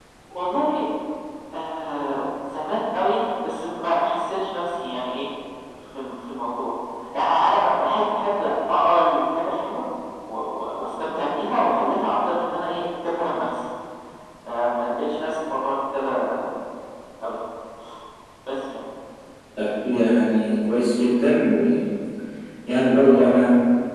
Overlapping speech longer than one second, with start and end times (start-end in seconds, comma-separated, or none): none